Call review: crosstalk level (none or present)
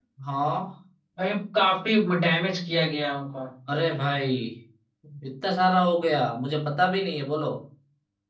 none